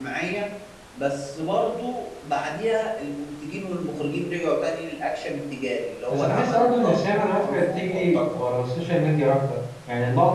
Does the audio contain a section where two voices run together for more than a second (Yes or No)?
Yes